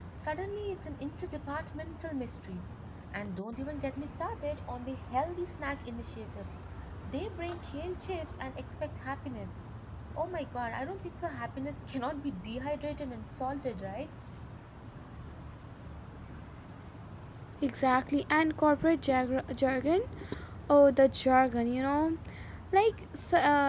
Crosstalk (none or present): none